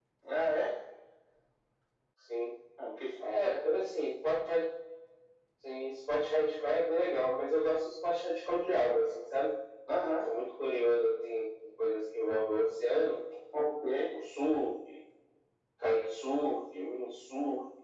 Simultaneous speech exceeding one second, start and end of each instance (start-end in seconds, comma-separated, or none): none